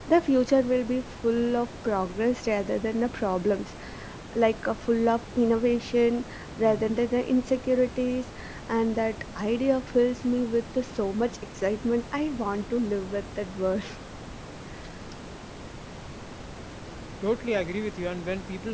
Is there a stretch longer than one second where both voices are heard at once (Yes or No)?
No